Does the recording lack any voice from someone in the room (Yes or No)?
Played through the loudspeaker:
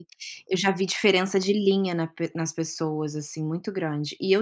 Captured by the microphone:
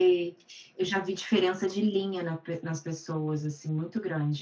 Yes